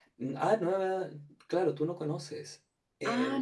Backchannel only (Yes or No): No